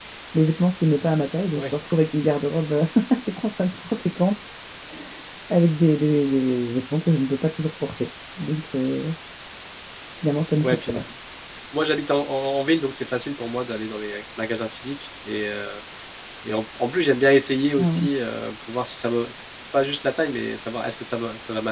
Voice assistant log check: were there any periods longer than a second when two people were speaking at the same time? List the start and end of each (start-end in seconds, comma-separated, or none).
none